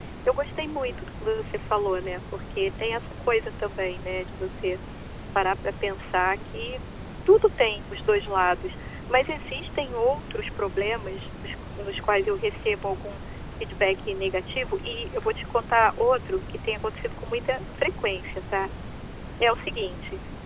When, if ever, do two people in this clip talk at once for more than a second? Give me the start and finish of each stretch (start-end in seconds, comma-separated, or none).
none